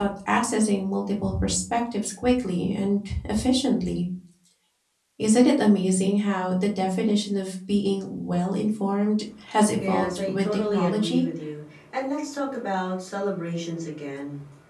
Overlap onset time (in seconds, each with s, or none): 9.8 s